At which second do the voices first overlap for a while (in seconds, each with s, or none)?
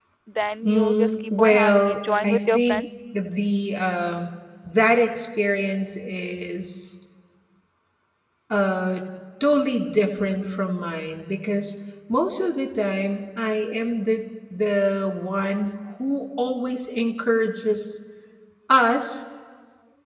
0.6 s